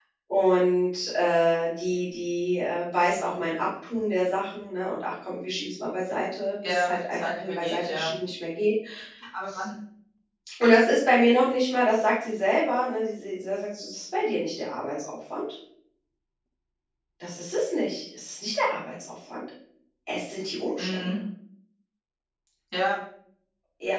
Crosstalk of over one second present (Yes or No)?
Yes